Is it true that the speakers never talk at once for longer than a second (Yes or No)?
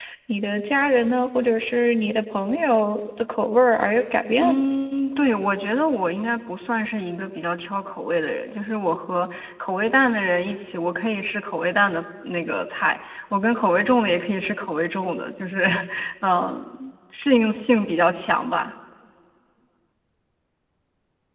Yes